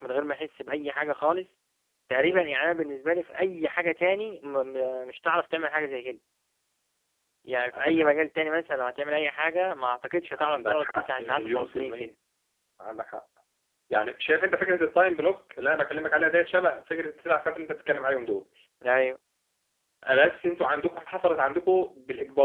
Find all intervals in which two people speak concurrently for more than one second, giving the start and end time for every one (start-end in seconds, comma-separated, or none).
10.4-12.1